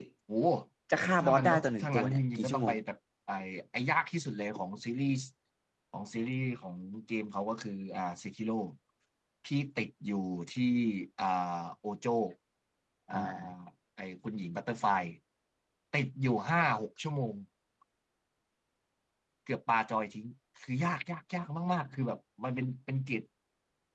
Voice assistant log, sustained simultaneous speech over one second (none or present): present